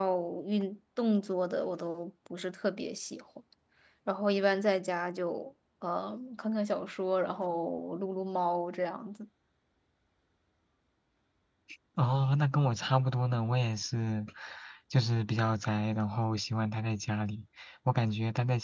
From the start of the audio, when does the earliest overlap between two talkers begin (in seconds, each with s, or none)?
none